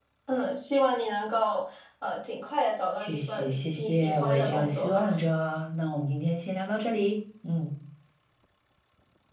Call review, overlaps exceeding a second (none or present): present